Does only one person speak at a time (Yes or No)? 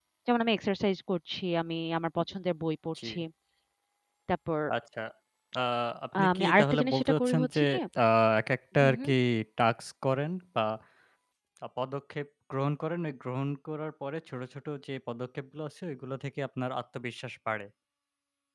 No